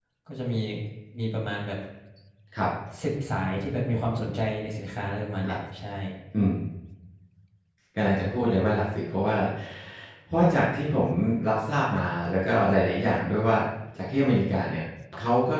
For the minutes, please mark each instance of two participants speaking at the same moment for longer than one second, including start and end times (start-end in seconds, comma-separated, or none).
none